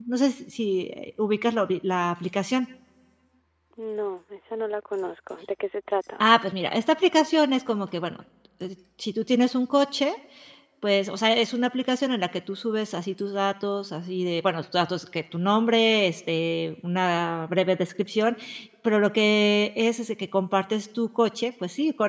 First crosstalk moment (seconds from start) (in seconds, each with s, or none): none